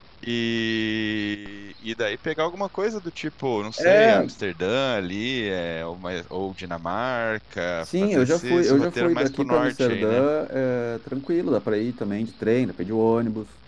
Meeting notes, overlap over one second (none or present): present